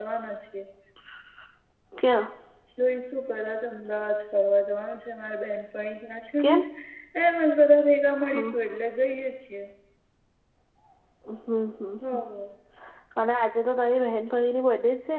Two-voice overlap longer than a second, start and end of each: none

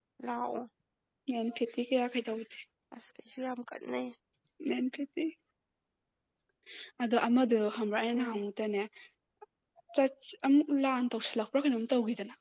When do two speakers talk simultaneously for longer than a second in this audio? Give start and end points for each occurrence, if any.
none

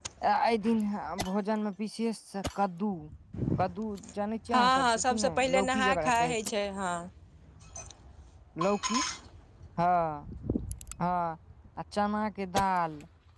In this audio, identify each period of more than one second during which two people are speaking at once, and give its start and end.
4.5-6.1

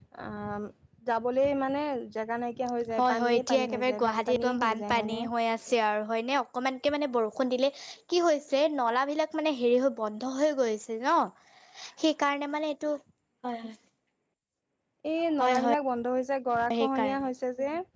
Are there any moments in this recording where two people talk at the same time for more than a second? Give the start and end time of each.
3.0-5.2

